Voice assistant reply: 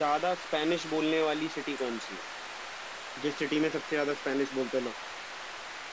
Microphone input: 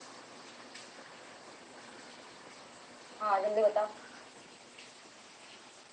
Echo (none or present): none